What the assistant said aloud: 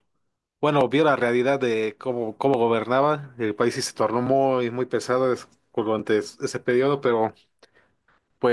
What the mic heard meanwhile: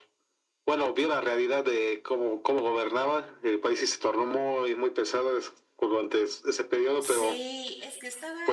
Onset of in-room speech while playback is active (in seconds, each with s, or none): 7.0 s